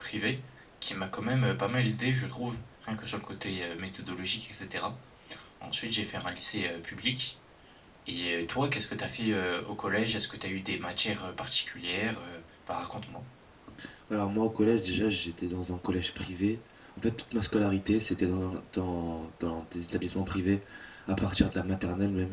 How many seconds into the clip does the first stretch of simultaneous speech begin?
none

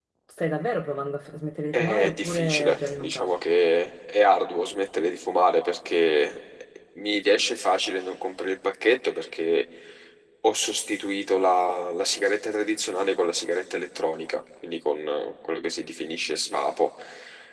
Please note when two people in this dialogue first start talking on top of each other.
1.7 s

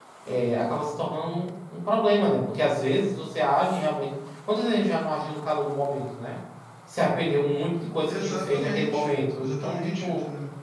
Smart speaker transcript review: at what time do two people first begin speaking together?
8.1 s

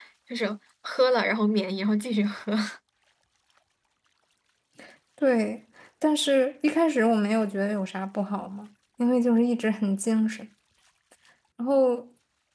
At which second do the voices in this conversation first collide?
none

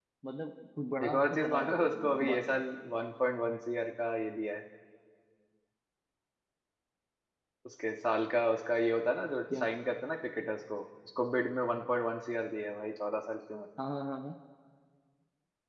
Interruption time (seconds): 1.0 s

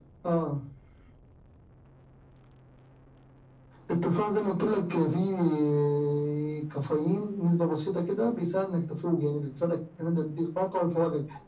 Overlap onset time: none

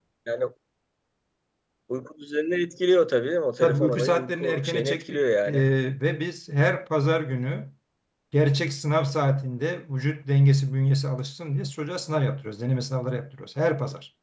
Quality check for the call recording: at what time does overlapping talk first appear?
3.6 s

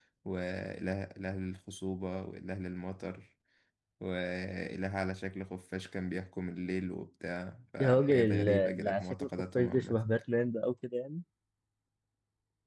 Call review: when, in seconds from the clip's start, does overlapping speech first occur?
7.8 s

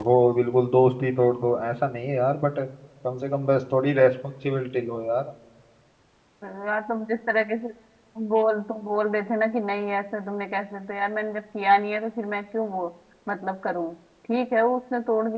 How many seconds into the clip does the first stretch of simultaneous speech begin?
none

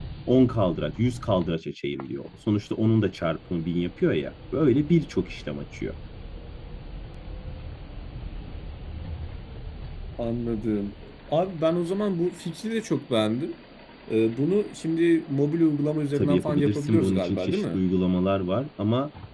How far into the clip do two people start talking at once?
16.2 s

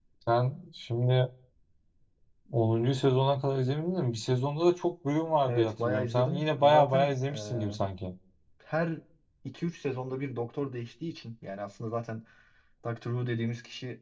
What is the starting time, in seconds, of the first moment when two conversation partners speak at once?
5.4 s

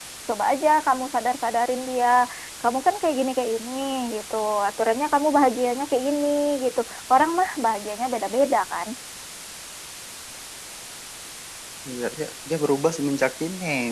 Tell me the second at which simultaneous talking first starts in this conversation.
none

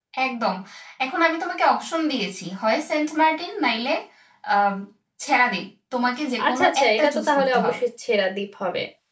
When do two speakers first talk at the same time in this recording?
6.4 s

